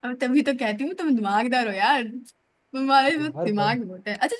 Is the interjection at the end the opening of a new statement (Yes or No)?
No